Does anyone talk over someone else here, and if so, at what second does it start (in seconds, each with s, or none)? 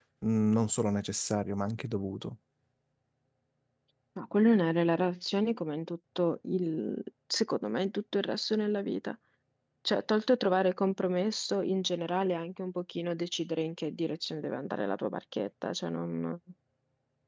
none